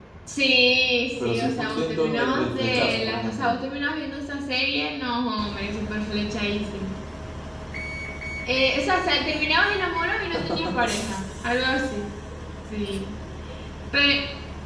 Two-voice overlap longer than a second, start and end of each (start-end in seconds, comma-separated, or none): 1.2-3.5